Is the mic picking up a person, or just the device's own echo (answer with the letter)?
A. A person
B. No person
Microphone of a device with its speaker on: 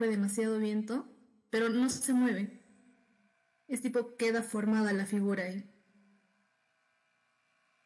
B